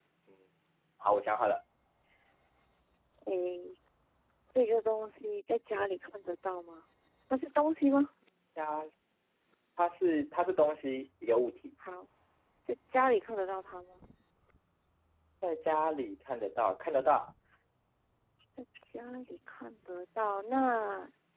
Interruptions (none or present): none